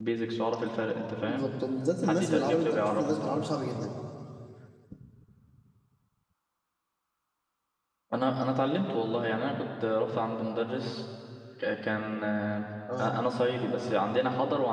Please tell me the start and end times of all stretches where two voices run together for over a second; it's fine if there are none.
2.0-3.5

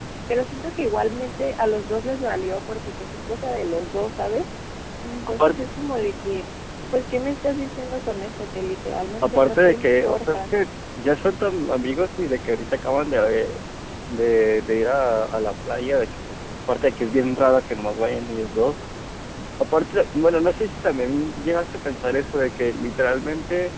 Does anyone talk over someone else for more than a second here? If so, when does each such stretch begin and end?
9.2-10.4

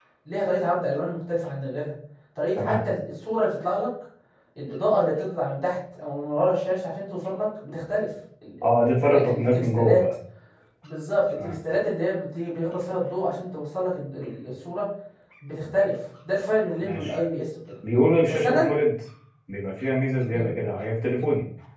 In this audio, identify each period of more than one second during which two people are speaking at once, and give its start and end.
8.6-10.0

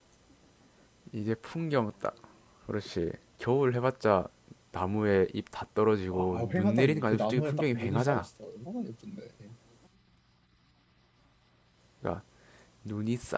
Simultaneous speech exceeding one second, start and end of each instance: 6.1-8.2

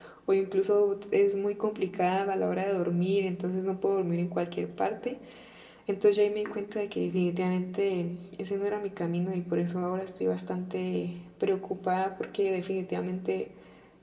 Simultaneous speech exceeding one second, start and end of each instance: none

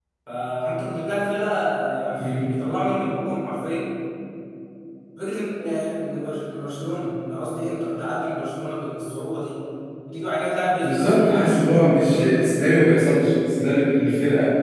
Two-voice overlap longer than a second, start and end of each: 10.8-12.5

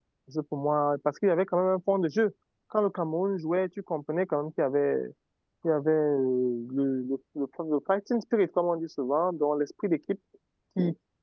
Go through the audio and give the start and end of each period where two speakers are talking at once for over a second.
none

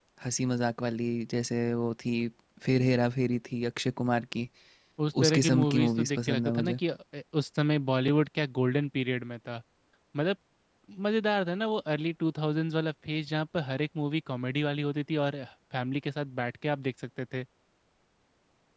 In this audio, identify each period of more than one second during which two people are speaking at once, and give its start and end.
5.2-6.8

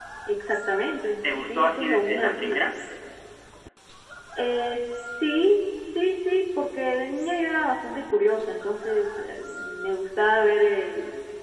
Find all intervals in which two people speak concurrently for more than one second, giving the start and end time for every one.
1.2-2.7

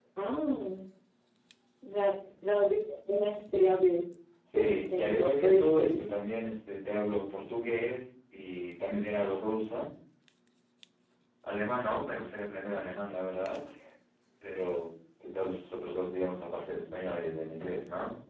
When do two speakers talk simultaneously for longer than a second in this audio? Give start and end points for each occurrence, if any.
4.5-6.0

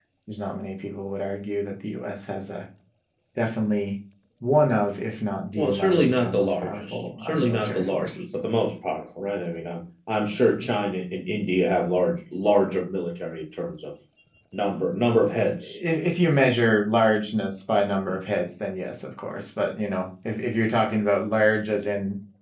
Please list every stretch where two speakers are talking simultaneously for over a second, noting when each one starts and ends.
5.6-8.4

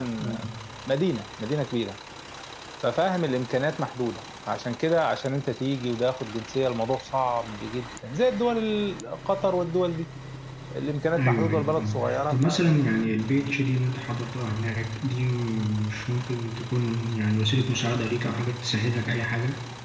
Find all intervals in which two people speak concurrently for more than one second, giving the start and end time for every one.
11.2-12.9

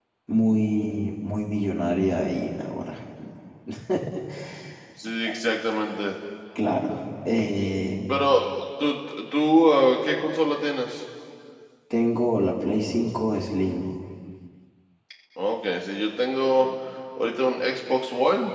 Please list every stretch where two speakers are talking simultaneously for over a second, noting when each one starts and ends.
none

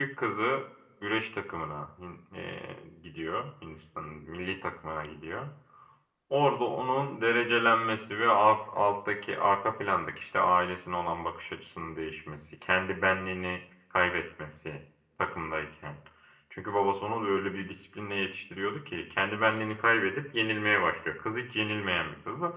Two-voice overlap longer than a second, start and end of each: none

